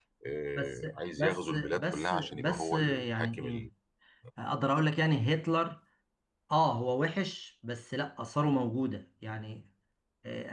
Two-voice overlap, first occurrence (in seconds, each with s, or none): 0.6 s